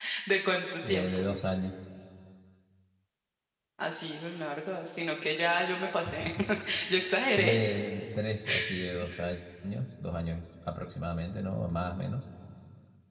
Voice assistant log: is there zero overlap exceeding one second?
Yes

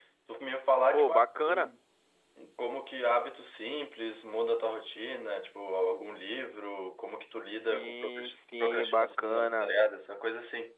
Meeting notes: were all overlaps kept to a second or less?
No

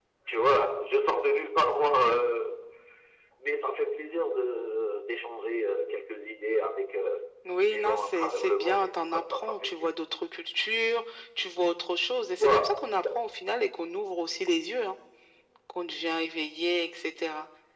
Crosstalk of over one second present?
Yes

